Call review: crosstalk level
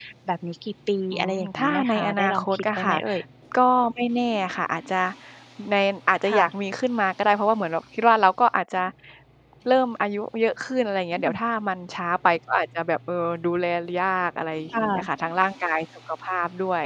present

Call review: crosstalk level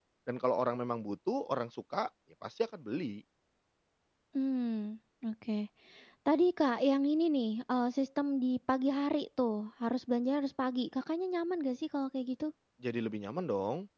none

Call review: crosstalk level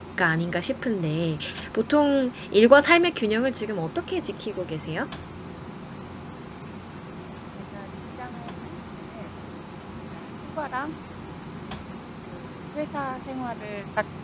none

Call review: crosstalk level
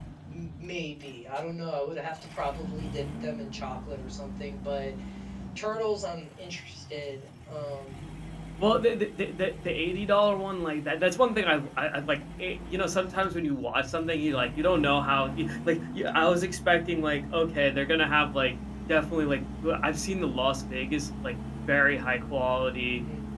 none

